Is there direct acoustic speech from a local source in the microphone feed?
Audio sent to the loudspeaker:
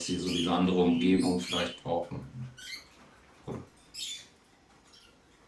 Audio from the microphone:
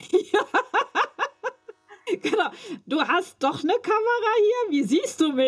Yes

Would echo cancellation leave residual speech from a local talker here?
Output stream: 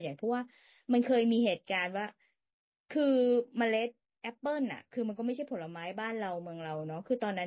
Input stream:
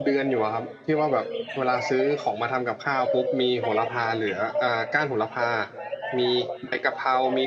Yes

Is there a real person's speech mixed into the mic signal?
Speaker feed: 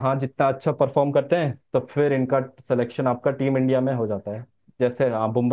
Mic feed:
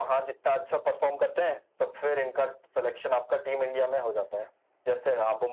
No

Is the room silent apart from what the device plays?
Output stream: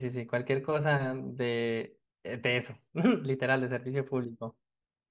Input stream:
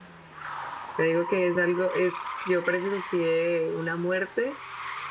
No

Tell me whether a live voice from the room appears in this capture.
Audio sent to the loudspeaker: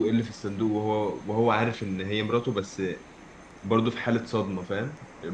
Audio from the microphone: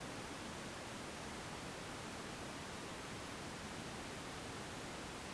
No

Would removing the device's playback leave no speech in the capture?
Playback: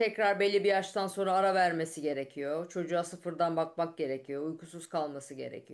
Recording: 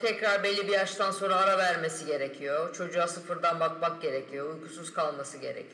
Yes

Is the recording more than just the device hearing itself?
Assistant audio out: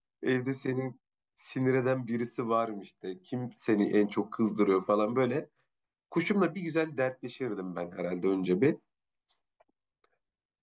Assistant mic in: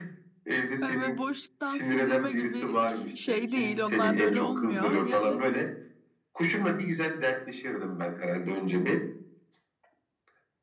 Yes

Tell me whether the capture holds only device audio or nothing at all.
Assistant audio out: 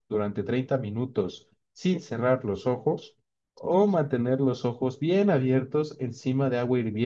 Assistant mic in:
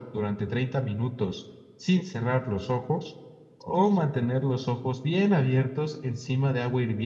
Yes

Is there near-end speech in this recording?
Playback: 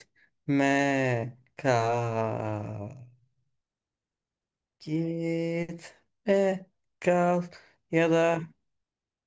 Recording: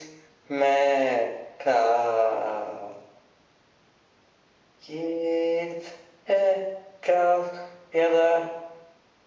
No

